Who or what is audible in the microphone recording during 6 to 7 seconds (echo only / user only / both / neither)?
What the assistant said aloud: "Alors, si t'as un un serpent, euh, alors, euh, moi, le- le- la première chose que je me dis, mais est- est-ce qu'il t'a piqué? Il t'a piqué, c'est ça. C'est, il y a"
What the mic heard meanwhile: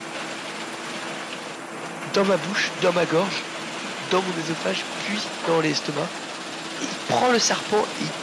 user only